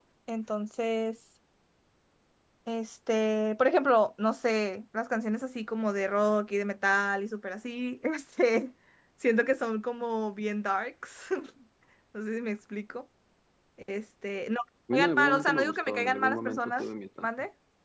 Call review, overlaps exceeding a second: present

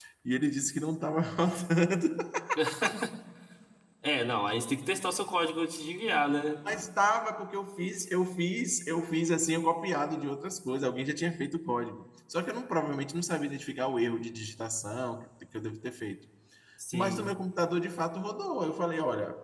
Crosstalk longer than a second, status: none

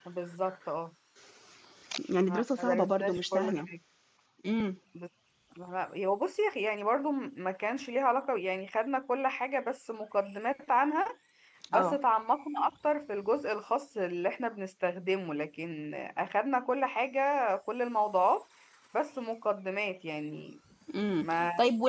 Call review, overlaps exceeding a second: present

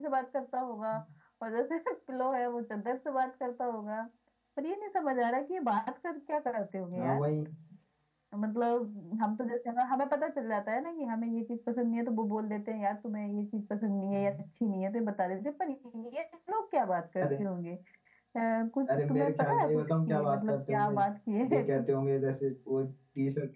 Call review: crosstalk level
present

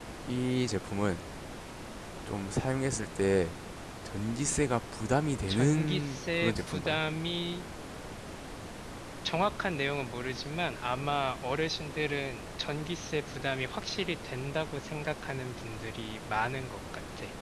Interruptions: present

